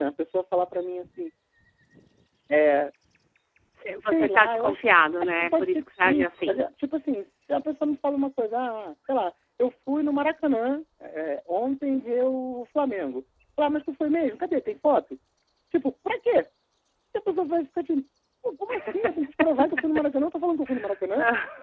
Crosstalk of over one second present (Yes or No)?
Yes